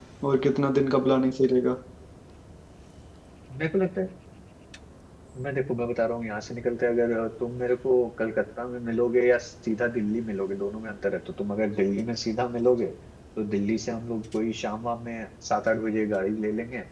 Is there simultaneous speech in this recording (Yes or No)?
No